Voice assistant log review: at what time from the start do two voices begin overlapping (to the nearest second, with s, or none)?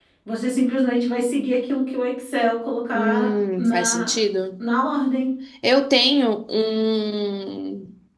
3 s